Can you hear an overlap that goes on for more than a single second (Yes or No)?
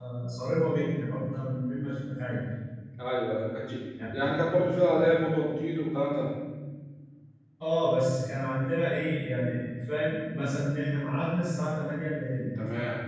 No